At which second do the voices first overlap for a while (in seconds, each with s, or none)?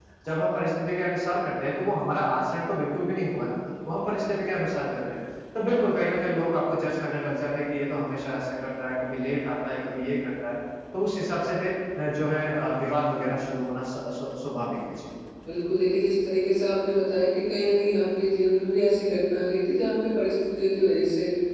none